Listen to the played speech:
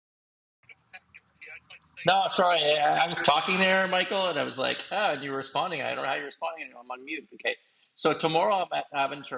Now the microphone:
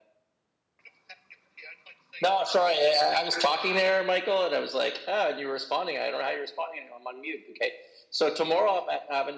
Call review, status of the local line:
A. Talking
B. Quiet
B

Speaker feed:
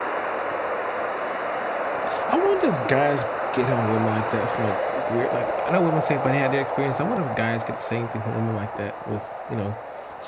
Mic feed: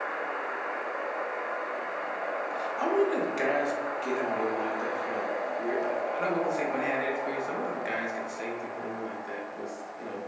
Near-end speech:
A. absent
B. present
A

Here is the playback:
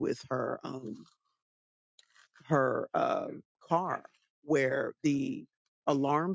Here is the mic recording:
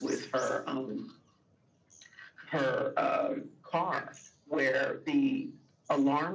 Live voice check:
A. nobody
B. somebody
A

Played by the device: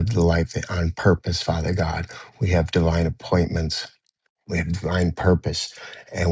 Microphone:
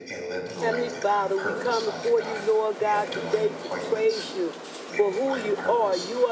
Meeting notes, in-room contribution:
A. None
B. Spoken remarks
B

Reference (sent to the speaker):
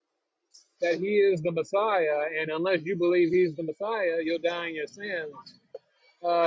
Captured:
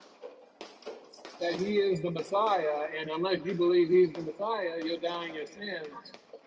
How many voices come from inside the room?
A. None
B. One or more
A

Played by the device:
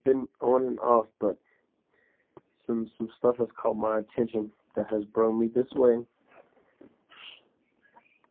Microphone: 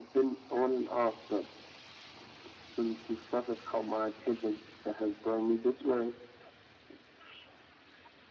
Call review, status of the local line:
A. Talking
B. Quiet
B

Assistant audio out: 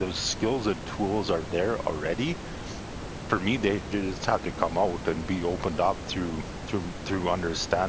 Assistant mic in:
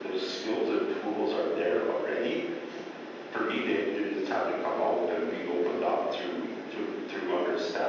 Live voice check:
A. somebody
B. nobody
B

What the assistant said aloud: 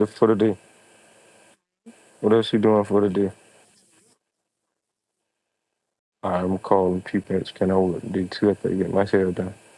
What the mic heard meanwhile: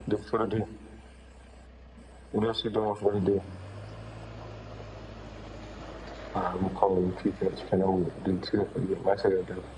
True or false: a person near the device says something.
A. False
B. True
A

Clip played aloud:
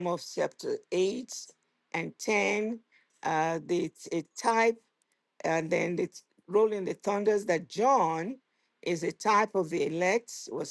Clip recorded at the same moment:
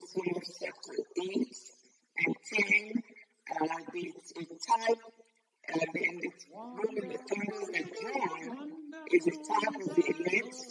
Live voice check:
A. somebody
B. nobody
A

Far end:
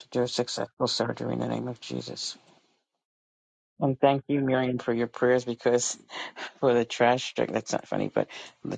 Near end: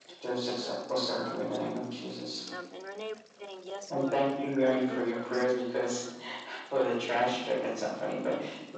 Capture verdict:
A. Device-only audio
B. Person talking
B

